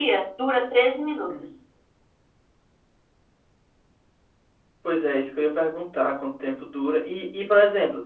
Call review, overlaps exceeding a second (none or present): none